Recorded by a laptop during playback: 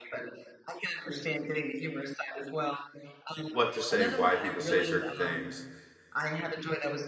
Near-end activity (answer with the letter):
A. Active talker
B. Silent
A